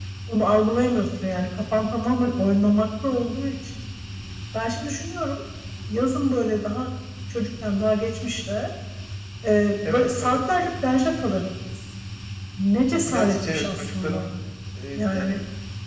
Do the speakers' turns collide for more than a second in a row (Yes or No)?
Yes